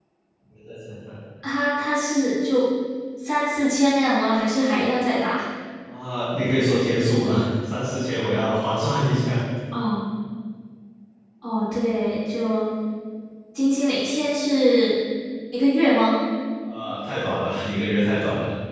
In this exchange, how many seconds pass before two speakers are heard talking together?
none

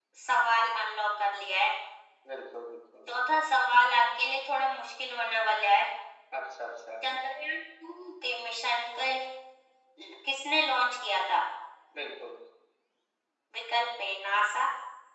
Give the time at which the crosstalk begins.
none

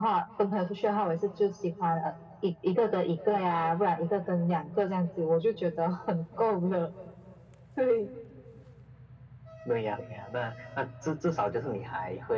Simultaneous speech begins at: none

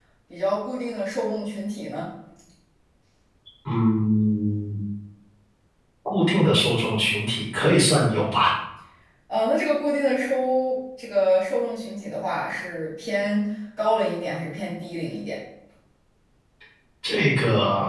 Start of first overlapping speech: none

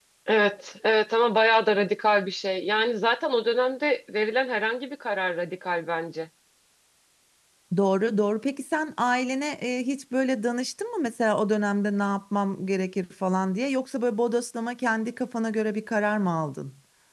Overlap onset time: none

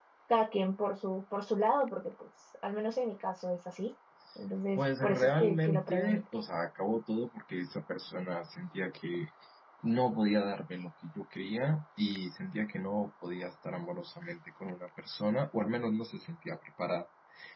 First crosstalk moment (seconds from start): 4.8 s

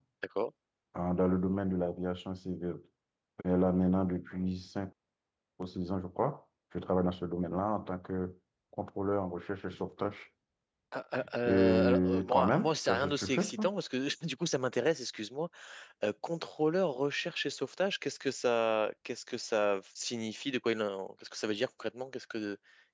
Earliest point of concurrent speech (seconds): 11.4 s

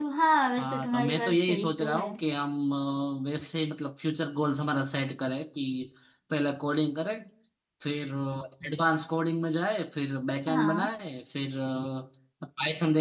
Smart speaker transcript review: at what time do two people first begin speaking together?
0.6 s

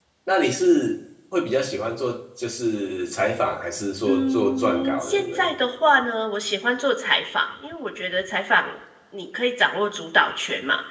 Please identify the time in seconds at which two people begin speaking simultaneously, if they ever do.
4.1 s

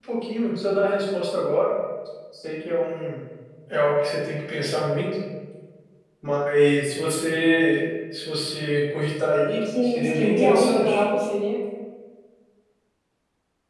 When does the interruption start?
9.6 s

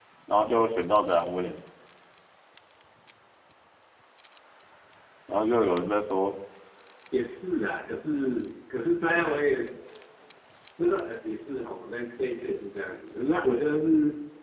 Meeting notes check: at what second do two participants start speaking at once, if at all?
none

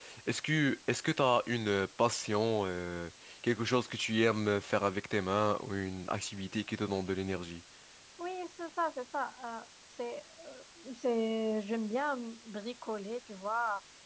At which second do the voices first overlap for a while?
none

